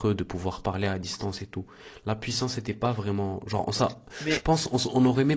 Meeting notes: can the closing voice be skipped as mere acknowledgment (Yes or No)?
Yes